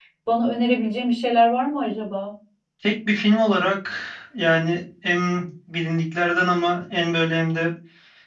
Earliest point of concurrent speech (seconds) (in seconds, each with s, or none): none